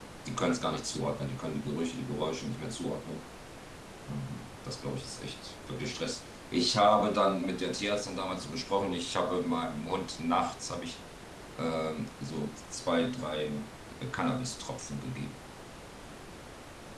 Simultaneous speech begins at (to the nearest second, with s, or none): none